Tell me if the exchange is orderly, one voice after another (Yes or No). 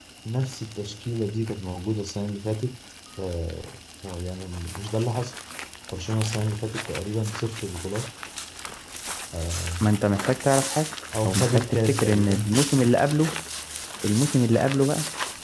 No